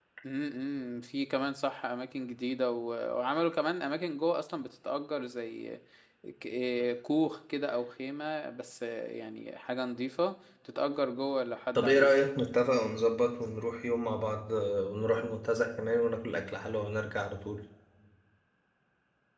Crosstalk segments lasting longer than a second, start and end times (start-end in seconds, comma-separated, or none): none